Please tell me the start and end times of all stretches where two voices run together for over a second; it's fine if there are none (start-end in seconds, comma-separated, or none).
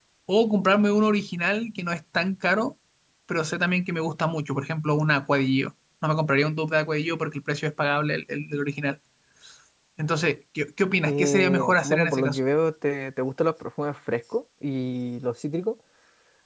11.1-12.4